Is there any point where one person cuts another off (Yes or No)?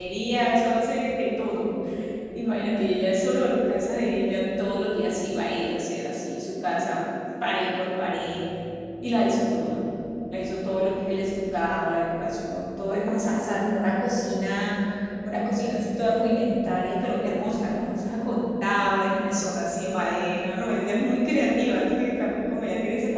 No